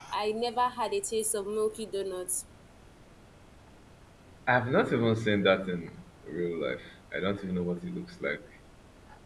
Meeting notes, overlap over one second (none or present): none